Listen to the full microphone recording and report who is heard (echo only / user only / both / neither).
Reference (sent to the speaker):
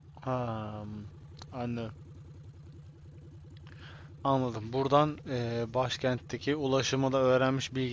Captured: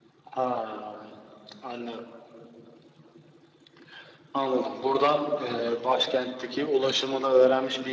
echo only